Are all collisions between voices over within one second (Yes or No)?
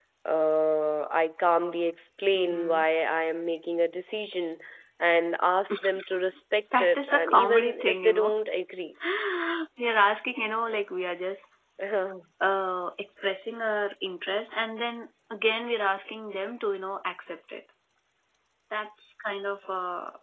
No